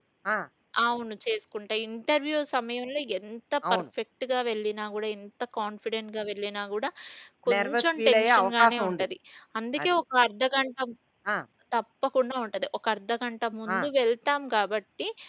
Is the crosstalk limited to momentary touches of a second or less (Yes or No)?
No